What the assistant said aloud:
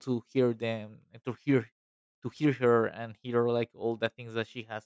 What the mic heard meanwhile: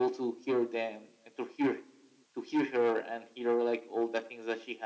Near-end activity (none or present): none